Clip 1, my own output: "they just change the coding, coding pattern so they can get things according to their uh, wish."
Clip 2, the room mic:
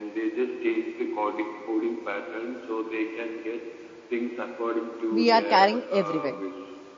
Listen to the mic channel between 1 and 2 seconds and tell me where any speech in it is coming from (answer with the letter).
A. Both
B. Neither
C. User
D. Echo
D